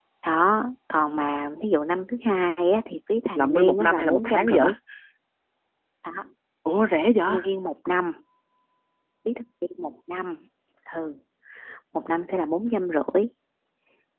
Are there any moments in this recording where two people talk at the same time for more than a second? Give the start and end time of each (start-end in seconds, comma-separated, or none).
3.4-4.6